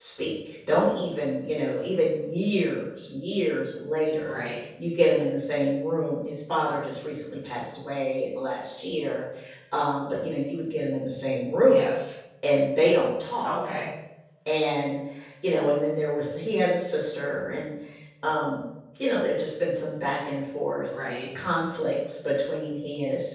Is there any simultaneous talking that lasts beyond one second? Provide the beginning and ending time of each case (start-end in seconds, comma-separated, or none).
none